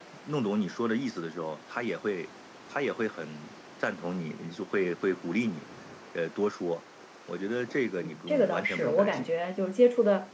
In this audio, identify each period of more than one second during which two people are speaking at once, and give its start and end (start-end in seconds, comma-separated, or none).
8.0-9.3